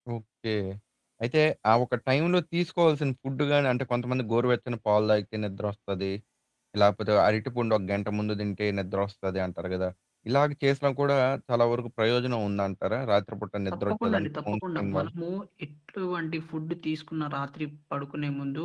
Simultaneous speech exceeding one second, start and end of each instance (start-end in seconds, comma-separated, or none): 13.7-15.1